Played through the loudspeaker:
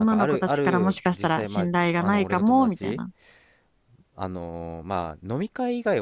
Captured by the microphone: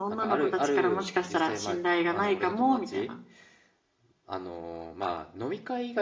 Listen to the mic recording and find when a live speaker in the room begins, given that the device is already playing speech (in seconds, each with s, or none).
none